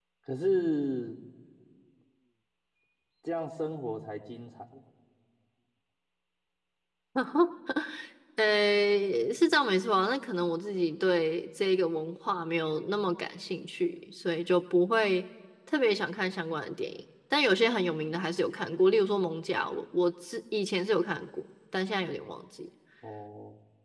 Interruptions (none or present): none